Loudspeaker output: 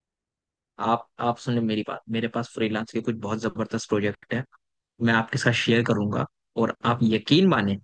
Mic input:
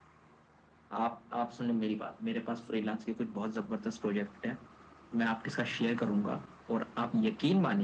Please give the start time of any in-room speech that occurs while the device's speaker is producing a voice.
none

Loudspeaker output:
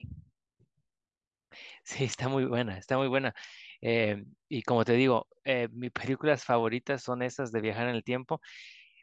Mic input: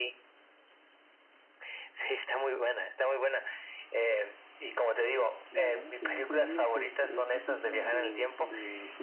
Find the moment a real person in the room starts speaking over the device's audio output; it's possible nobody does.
6 s

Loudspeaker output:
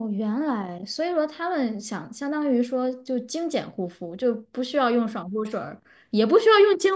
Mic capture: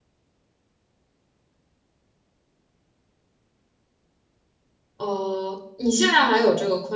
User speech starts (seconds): 5 s

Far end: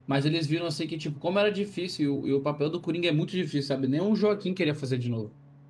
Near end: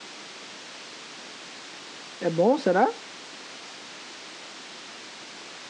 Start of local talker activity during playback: 2 s

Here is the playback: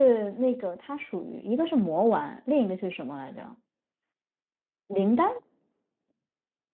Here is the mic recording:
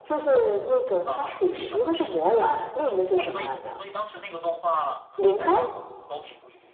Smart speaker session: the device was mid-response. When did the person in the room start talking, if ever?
1 s

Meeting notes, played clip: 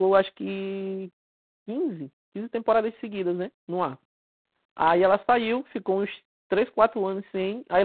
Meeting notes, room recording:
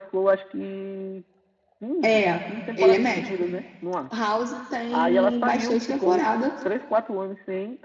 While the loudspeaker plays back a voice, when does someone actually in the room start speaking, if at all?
2 s

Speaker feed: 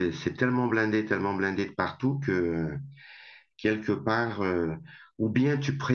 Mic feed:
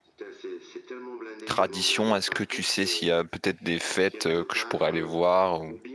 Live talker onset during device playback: 1 s

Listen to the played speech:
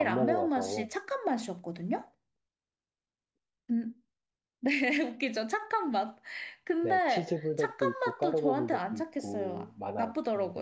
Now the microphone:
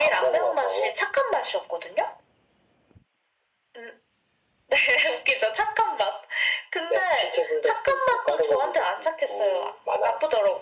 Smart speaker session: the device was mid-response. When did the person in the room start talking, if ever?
none

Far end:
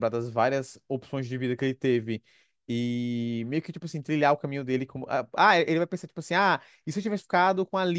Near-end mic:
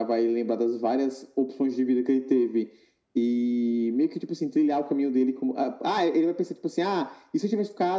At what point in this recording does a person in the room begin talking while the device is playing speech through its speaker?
none

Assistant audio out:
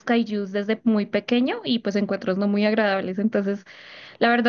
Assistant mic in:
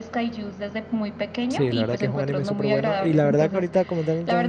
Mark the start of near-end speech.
1 s

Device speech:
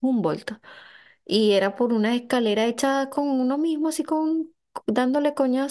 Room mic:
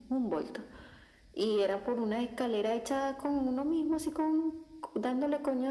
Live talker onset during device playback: none

